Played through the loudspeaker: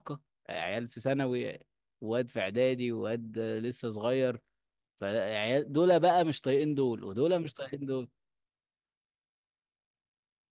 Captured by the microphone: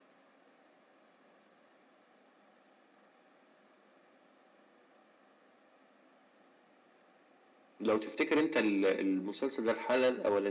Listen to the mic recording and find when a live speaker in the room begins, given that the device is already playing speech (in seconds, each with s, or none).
7.8 s